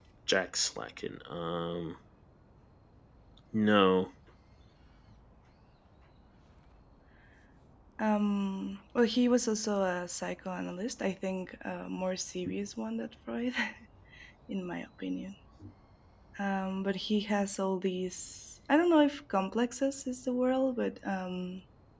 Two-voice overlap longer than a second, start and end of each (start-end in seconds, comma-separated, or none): none